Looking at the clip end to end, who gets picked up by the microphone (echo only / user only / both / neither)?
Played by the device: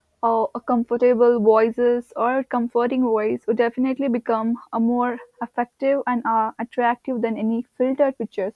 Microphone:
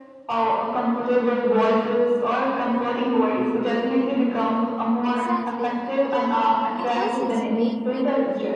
both